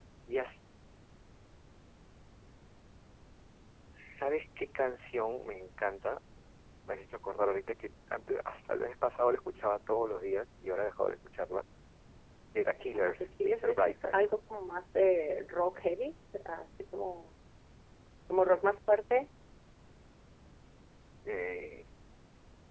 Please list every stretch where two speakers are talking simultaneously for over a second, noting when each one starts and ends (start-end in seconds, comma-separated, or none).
12.9-14.2